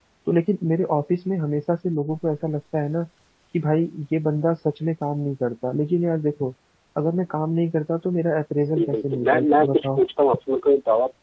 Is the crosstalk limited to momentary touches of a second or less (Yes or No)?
No